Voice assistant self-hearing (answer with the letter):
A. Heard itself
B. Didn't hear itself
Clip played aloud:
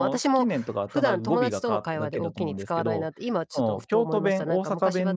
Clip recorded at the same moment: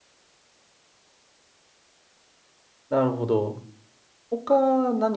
B